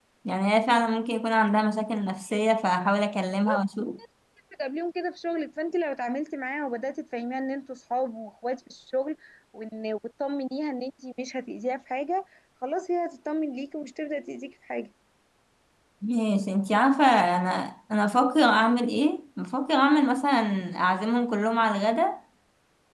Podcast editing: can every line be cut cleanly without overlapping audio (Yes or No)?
Yes